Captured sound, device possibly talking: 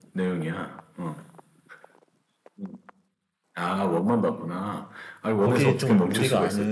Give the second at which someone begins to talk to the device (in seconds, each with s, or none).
5.4 s